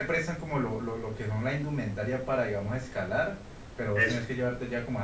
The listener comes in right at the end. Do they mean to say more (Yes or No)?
No